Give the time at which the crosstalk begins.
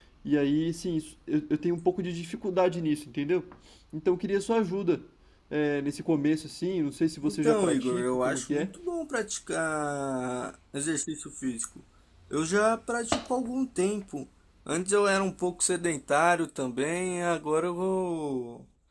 7 s

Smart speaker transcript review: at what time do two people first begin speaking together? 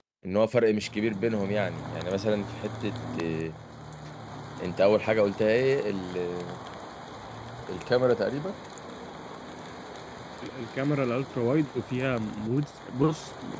none

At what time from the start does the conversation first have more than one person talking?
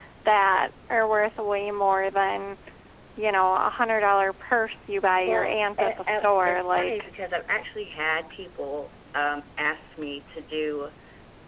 5 s

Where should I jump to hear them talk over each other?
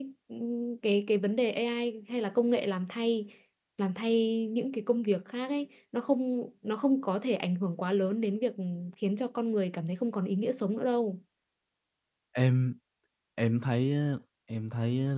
none

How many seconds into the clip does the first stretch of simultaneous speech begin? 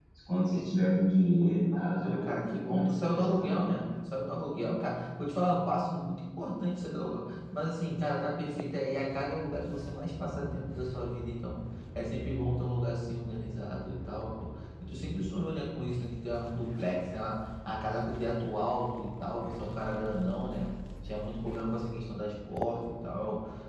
2 s

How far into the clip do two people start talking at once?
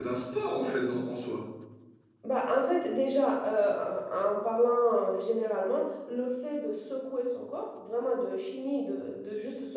none

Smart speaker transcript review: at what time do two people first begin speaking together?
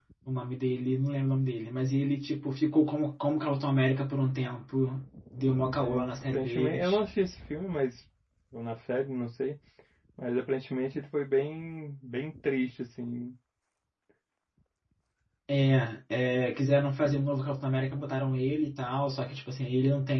6 s

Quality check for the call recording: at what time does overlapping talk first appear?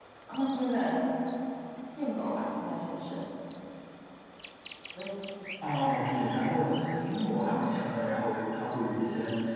none

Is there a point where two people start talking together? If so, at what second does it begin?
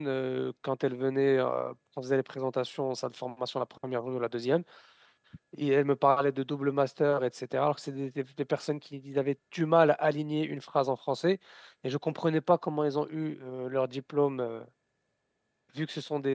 none

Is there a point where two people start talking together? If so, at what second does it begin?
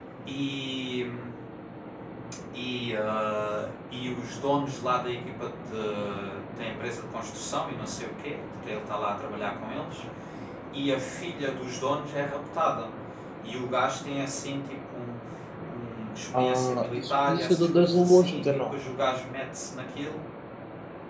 16 s

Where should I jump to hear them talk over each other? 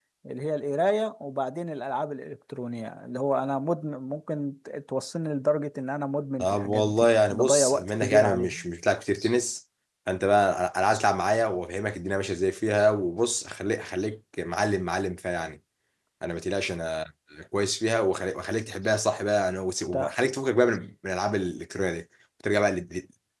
6 s

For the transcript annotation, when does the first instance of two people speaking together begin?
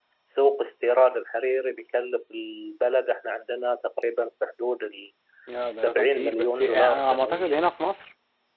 6 s

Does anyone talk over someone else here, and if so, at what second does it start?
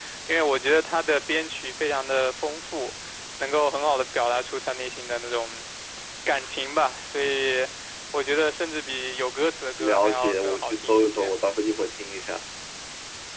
10 s

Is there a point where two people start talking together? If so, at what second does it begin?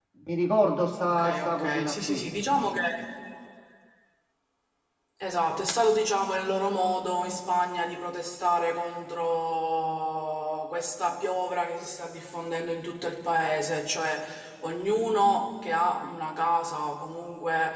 1 s

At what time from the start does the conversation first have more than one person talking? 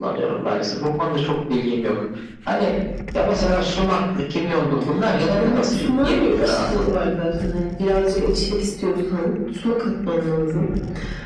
5 s

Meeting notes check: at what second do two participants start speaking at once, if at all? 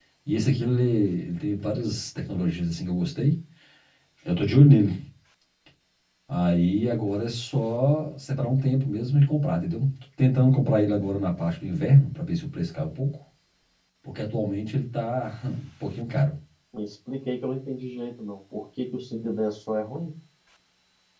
none

